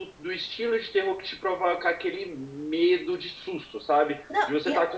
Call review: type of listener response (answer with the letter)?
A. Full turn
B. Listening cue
B